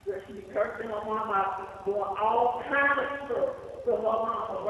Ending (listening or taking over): listening